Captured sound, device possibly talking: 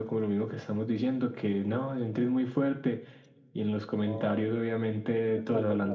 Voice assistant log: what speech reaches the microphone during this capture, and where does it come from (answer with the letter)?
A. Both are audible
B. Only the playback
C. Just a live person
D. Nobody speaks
A